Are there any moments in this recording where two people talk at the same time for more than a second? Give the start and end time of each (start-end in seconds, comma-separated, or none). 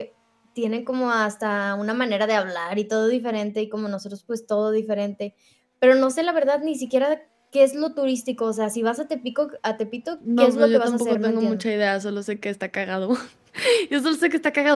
10.4-11.6